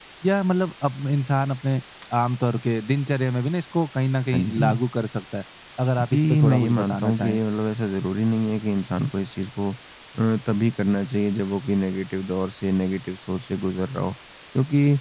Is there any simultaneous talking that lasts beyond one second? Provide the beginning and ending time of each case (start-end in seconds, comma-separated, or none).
6.1-7.4